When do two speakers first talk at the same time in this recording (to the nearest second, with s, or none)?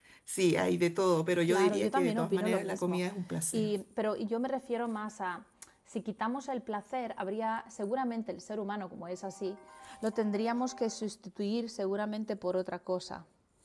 1 s